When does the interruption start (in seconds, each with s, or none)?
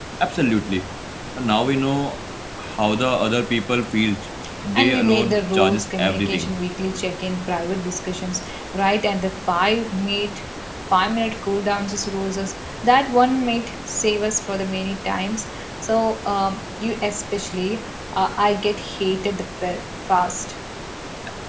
4.8 s